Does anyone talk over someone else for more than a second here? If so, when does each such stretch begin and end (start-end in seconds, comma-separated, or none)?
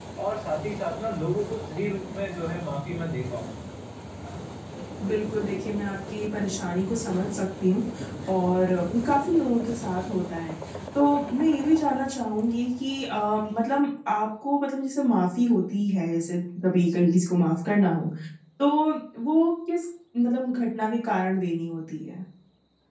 none